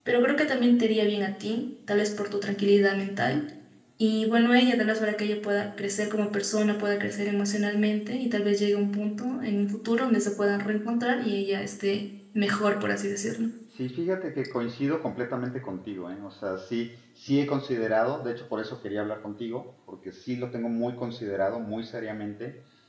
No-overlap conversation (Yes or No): Yes